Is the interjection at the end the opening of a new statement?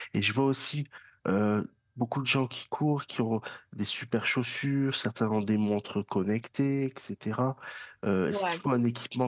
No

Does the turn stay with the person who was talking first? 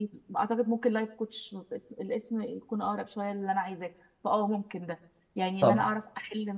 Yes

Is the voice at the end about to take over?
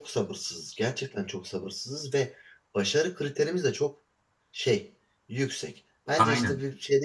No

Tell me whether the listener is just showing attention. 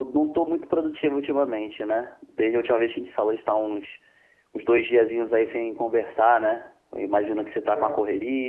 Yes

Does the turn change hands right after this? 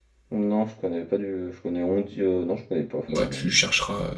Yes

